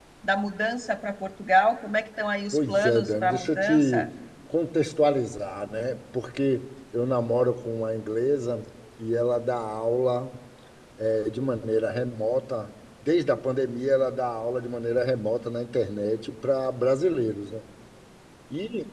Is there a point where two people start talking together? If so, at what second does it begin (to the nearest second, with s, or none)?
3 s